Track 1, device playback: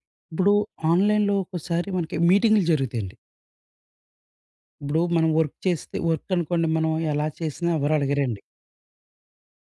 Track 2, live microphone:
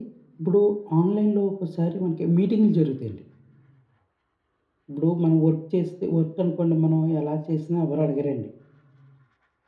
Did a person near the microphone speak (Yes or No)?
No